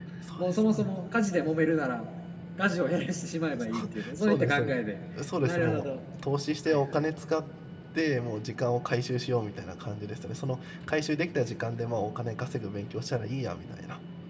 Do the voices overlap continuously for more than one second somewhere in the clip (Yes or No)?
Yes